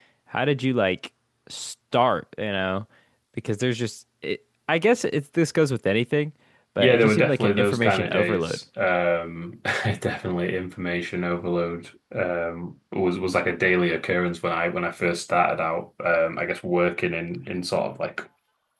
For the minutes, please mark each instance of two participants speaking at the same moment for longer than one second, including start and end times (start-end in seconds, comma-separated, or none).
6.8-8.6